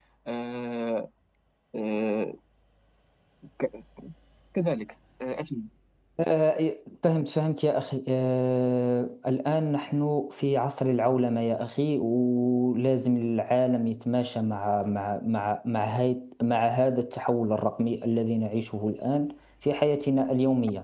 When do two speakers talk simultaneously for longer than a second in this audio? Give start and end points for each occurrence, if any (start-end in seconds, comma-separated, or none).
none